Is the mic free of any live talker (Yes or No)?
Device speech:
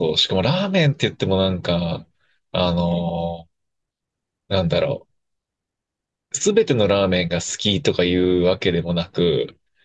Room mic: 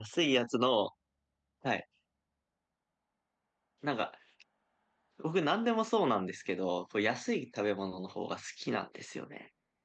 No